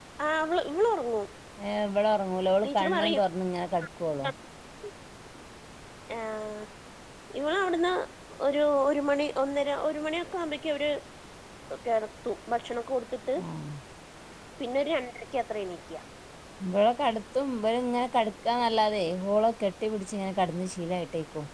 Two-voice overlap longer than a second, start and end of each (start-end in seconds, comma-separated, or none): none